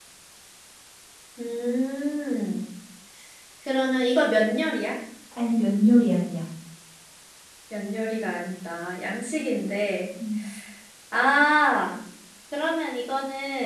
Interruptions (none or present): none